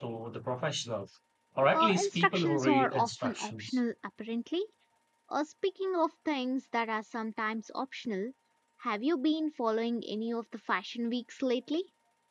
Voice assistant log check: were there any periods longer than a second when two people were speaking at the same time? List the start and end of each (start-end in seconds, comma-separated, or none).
1.7-3.8